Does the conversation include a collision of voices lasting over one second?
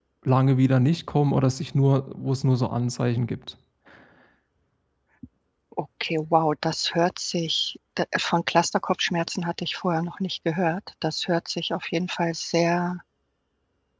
No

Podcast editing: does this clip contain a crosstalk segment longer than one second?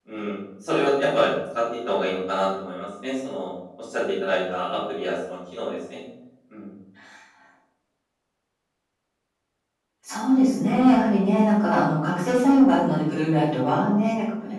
No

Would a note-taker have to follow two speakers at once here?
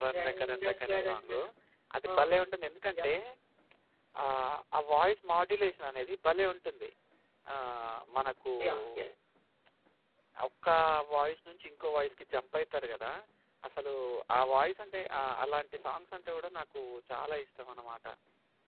Yes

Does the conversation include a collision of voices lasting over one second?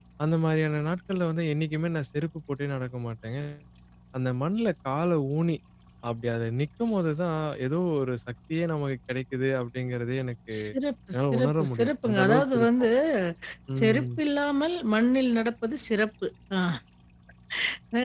Yes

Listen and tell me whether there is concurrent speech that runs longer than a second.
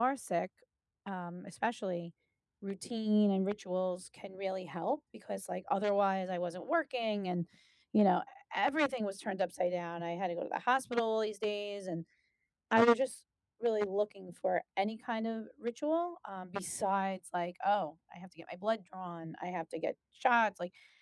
No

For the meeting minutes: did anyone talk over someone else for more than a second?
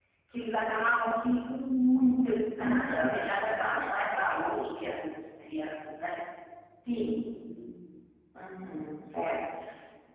Yes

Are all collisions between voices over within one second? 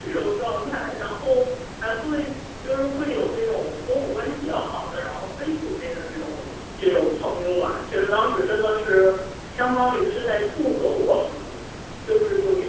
Yes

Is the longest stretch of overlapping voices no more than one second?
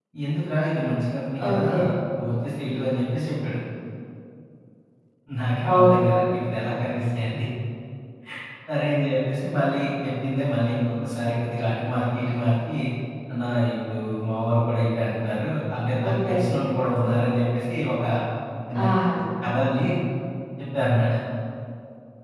Yes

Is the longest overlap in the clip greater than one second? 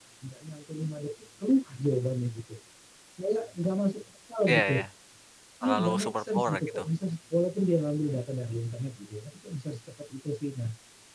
Yes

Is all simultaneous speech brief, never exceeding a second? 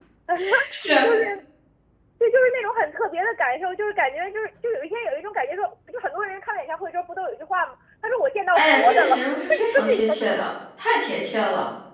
No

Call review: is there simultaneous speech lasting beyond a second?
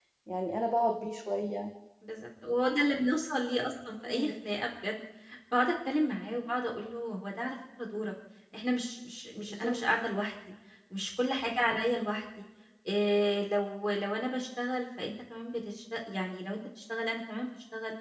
No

